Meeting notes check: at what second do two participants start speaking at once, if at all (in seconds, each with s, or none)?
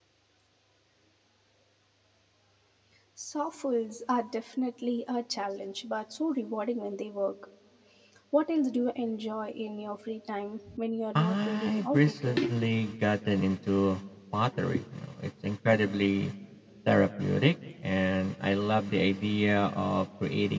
11.2 s